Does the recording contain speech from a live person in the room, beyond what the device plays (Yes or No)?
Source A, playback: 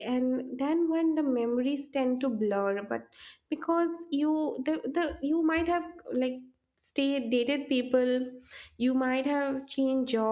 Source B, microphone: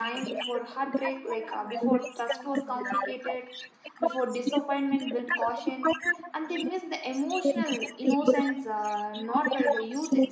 Yes